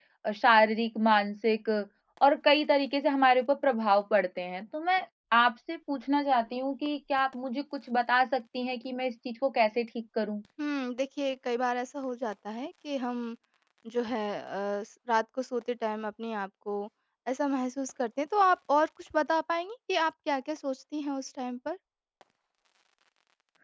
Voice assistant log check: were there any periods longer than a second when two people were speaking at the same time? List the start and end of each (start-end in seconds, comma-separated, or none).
none